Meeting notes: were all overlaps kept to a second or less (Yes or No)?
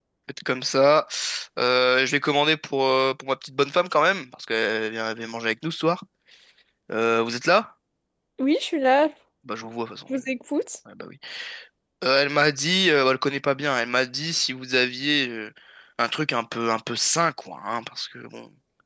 Yes